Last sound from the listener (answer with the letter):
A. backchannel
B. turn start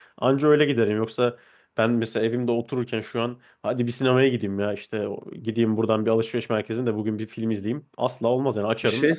B